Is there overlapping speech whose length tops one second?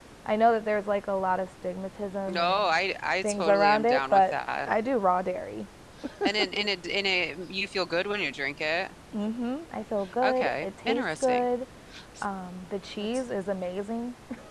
Yes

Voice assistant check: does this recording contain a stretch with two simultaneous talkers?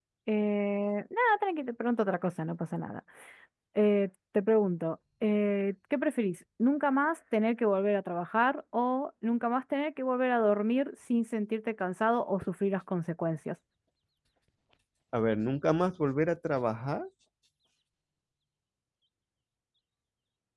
No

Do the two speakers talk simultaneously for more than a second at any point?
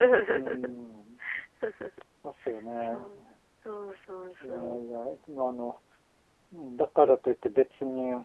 No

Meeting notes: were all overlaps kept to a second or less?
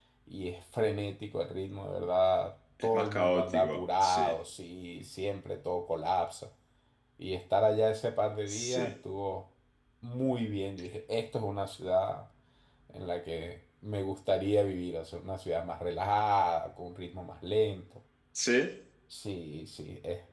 No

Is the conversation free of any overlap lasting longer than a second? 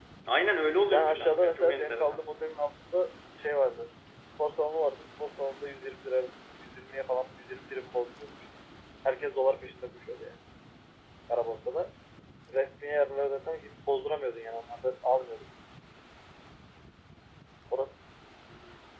No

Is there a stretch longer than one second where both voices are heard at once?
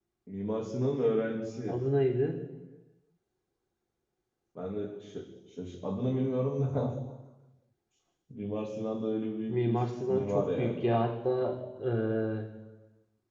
Yes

